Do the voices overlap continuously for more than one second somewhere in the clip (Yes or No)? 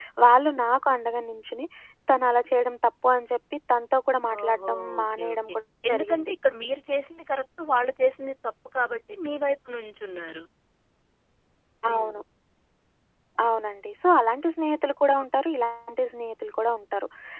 Yes